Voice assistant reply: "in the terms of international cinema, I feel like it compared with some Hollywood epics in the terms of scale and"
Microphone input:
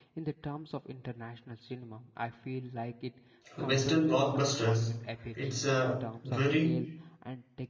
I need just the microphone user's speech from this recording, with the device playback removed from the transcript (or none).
Western blockbusters, it's a very